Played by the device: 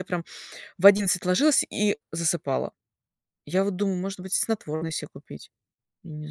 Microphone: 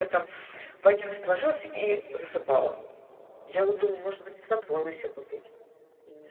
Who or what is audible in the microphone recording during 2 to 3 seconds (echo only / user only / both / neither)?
echo only